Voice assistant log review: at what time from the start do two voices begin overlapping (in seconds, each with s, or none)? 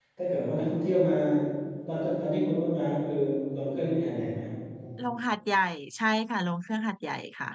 none